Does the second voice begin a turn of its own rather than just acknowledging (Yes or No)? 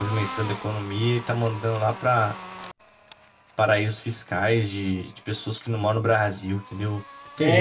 Yes